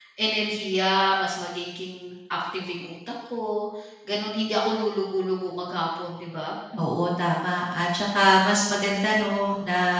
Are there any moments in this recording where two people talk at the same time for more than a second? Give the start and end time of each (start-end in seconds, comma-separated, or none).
none